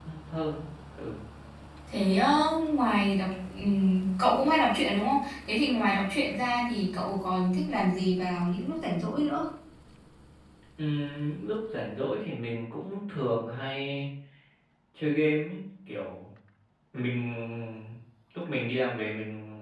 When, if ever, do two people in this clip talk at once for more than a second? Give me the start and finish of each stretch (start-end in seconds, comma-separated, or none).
none